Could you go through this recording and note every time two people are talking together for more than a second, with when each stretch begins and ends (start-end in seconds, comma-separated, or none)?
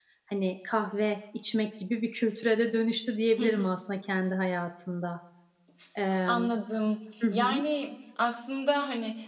none